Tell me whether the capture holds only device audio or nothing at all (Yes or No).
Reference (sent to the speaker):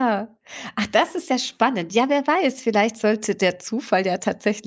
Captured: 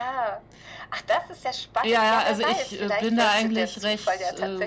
No